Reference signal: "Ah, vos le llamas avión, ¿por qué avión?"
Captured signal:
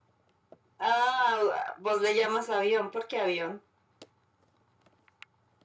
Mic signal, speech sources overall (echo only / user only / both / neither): echo only